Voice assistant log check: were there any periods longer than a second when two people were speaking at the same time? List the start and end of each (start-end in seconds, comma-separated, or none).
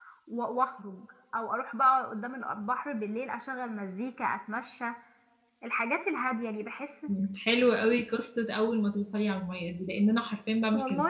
none